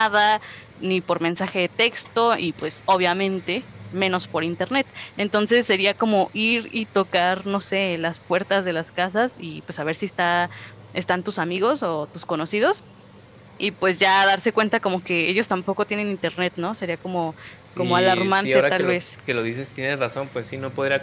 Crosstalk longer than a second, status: present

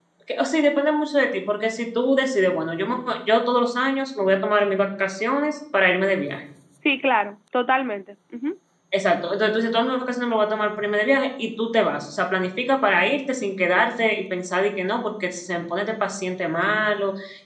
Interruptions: none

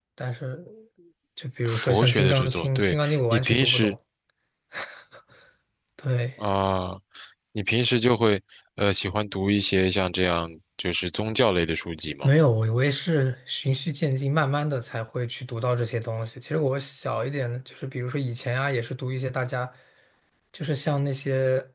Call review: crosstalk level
present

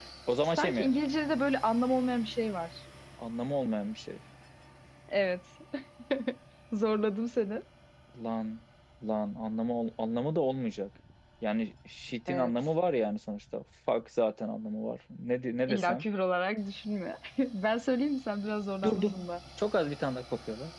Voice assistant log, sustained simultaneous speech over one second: none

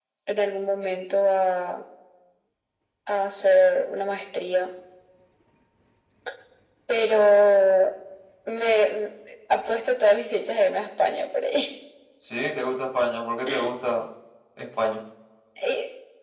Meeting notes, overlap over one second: none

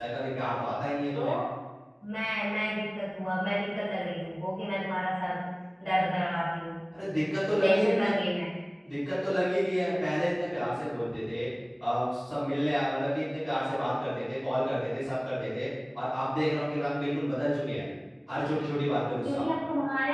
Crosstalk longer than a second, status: none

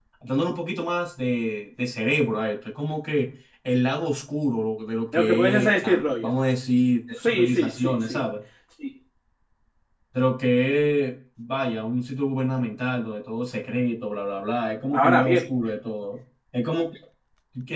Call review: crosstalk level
present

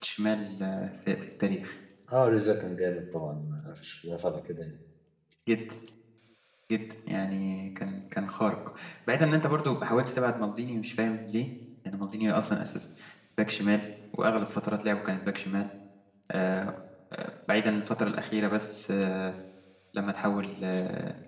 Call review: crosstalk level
none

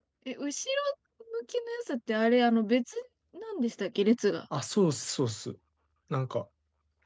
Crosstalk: none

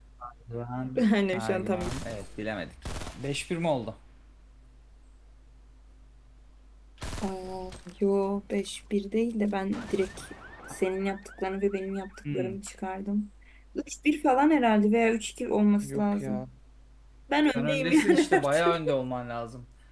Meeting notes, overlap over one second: present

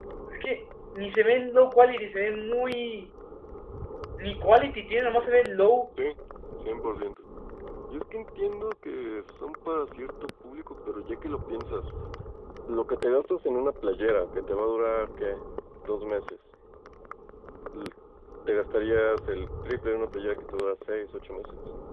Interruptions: none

